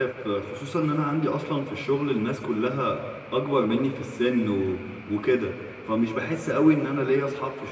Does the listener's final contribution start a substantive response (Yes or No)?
No